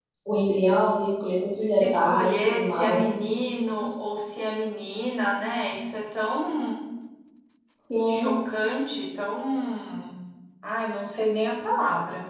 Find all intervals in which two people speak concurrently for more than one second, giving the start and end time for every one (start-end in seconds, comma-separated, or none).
1.8-3.0